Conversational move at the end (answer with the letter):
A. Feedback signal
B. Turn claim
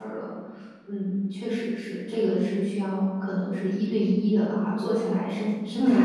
B